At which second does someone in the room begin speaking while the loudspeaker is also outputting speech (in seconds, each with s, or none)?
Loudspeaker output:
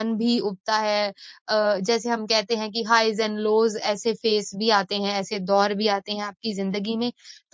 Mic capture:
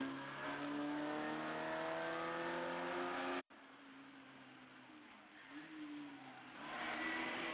none